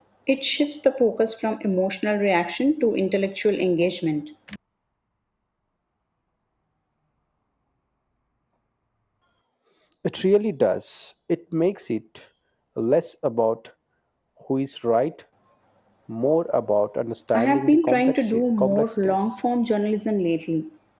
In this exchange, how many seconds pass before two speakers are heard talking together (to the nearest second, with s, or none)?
17 s